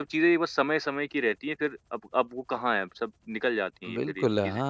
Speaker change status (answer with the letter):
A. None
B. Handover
B